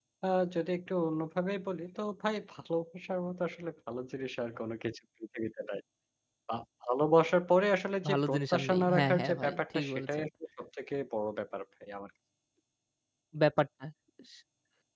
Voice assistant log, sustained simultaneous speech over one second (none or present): present